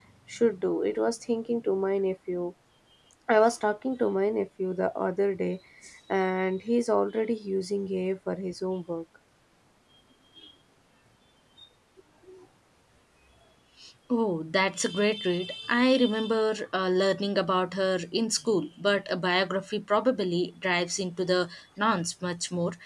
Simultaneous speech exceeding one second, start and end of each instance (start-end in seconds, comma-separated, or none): none